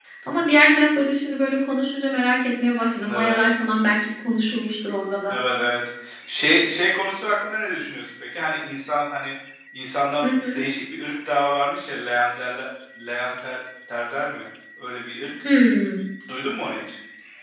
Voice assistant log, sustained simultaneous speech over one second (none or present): none